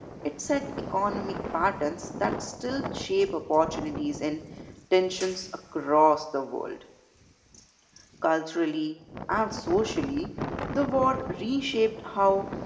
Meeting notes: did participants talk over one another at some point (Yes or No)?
No